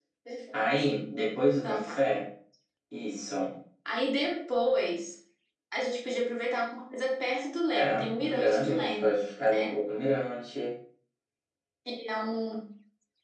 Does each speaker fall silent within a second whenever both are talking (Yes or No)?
No